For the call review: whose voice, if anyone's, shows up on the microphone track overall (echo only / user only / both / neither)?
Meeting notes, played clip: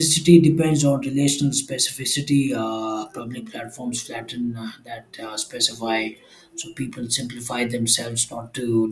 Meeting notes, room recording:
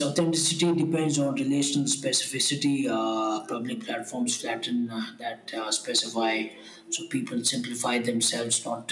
echo only